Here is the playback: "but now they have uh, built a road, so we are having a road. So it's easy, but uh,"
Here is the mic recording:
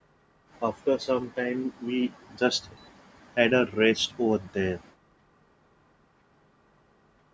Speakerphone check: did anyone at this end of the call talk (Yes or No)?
Yes